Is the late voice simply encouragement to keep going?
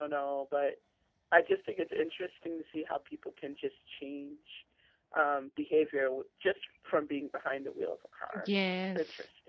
No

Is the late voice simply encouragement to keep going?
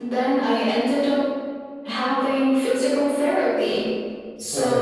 Yes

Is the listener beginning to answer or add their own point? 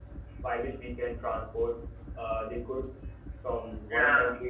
No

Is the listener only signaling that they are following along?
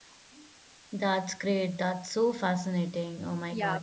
No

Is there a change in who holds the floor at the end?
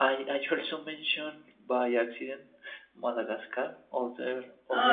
No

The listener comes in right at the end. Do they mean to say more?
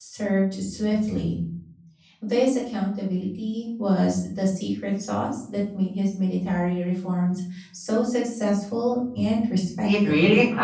Yes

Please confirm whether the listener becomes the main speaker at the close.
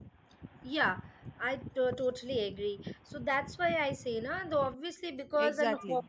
No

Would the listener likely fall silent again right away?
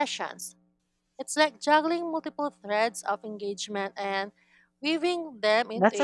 No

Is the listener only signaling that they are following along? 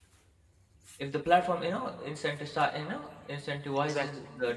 Yes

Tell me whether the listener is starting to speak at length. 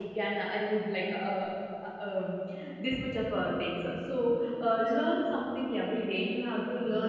No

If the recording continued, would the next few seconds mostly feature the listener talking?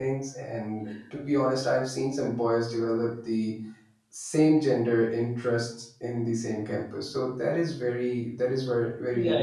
Yes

